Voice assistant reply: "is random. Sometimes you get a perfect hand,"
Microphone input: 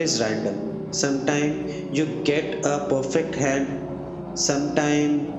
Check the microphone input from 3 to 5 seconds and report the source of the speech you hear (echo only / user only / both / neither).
echo only